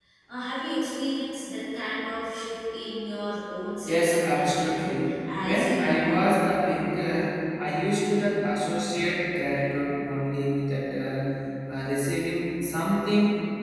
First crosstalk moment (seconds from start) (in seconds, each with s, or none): 3.9 s